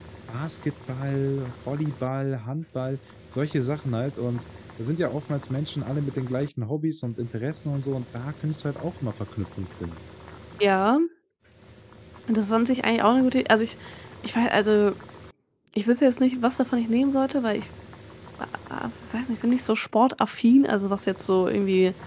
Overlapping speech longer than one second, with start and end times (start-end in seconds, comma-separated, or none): none